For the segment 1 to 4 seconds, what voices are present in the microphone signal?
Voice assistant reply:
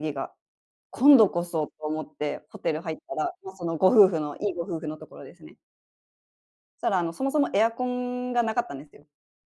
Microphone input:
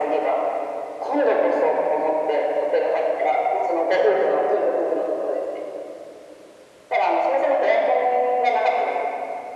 echo only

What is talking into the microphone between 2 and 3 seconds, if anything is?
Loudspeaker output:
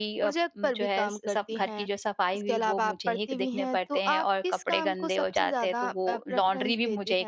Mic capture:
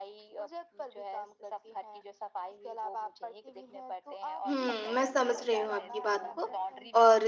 echo only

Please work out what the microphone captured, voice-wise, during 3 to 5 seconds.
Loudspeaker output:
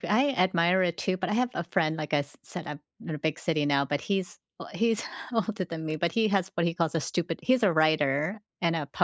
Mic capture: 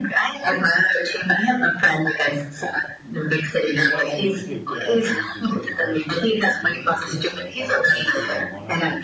both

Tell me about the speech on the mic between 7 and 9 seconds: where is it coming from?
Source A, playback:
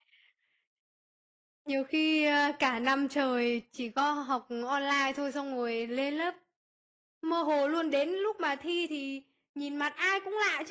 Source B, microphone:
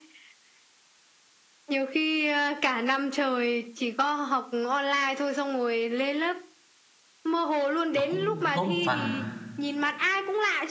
both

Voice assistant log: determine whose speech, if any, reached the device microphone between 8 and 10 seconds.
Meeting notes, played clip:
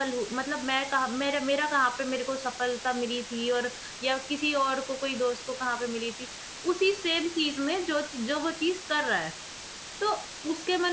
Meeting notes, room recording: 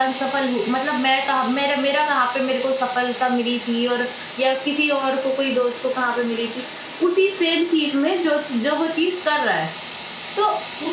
echo only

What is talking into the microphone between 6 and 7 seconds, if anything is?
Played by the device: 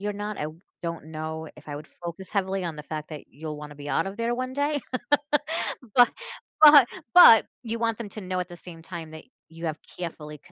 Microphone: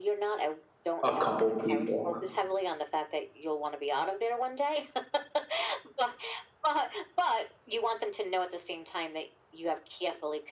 echo only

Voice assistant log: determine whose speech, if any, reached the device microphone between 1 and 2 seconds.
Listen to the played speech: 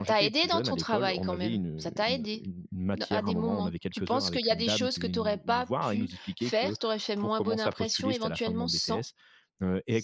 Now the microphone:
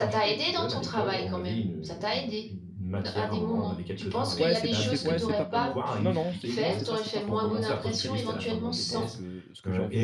echo only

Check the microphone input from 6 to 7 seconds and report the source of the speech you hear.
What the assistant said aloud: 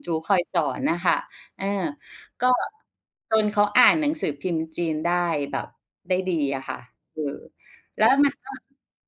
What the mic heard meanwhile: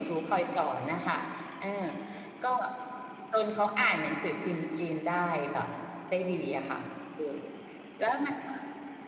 echo only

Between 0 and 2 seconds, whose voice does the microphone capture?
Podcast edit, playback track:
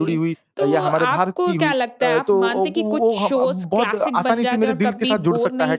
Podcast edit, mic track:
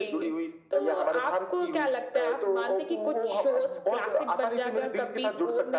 echo only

